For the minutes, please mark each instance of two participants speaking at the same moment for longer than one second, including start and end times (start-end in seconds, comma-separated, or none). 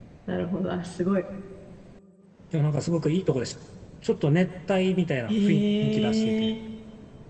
5.3-6.5